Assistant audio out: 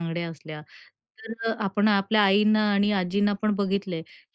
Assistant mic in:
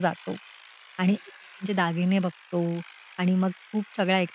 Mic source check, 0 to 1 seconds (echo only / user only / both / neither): user only